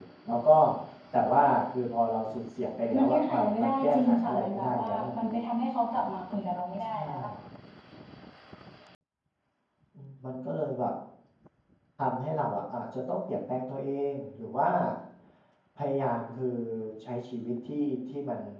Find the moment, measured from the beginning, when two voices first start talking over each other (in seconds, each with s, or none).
3.0 s